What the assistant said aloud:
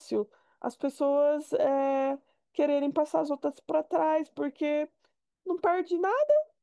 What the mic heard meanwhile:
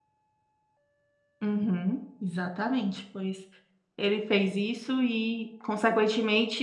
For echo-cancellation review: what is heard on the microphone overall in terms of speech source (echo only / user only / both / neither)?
user only